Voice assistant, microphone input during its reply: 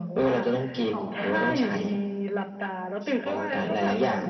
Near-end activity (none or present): present